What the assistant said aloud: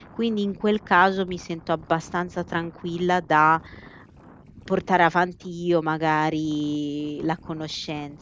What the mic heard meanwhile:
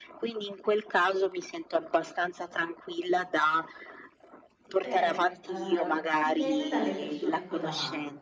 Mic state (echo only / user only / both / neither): both